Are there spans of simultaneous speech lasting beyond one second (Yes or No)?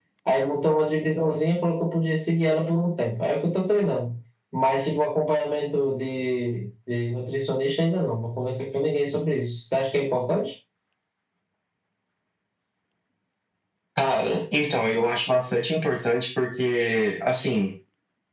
No